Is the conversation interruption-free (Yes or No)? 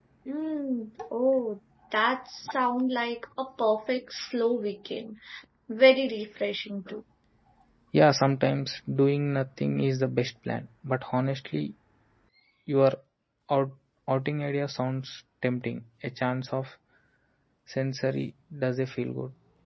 Yes